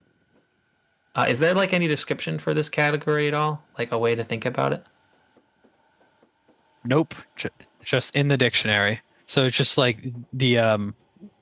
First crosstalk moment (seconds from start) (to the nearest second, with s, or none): none